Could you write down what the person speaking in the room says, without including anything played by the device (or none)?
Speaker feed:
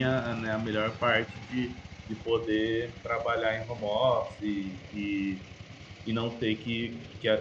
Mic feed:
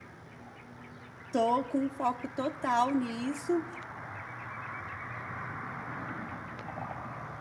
Tô com foco total nisso.